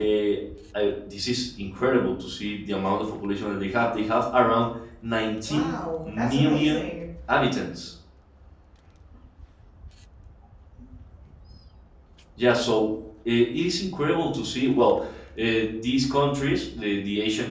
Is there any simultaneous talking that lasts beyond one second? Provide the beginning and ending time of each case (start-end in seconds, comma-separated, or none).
5.5-6.8